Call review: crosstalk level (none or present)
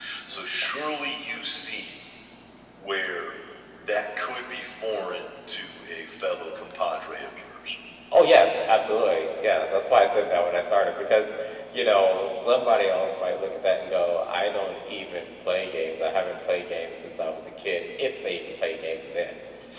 none